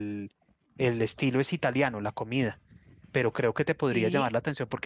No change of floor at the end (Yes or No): Yes